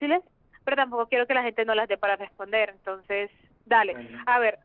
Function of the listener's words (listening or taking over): listening